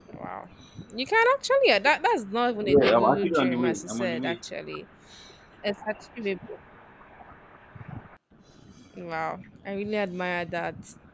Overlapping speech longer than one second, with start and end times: 2.6-4.3

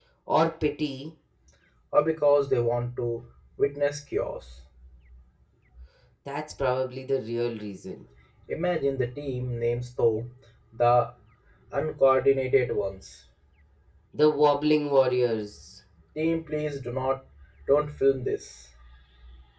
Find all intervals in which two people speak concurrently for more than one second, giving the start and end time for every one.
none

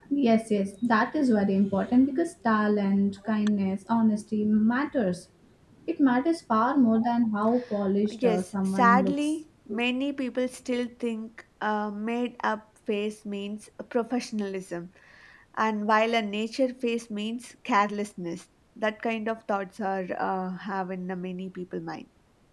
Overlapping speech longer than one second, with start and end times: 8.1-9.3

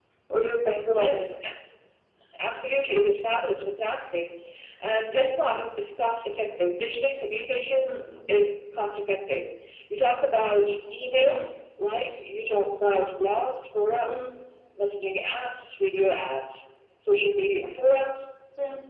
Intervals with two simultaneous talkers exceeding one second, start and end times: none

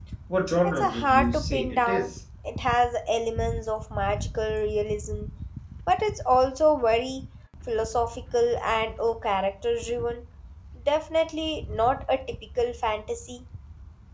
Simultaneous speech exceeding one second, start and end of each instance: 0.6-2.1

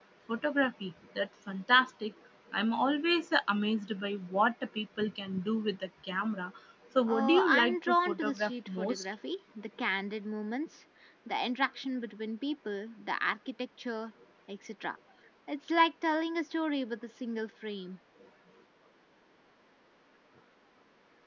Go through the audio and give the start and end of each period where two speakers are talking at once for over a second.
7.1-9.0

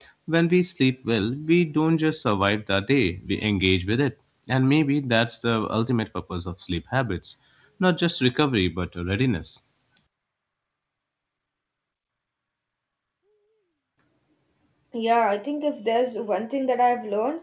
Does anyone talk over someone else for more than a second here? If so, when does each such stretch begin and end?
none

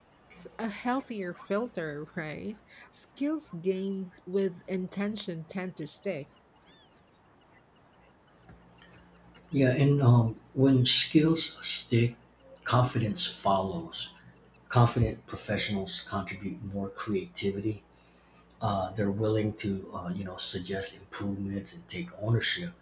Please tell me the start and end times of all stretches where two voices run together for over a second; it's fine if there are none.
none

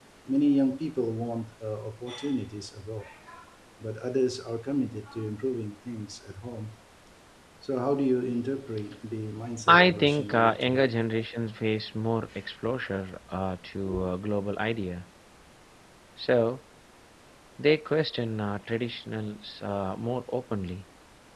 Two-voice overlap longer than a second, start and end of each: 9.7-10.9

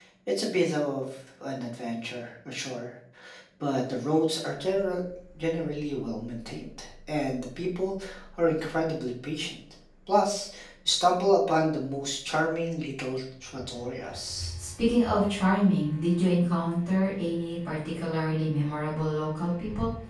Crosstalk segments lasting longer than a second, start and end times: none

